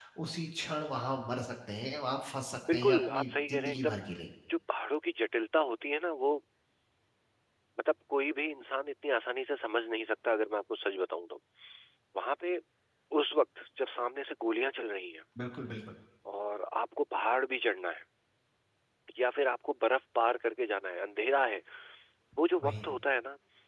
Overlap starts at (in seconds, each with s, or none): 2.7 s